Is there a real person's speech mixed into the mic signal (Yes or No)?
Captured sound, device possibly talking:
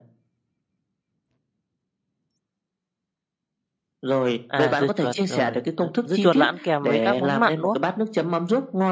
Yes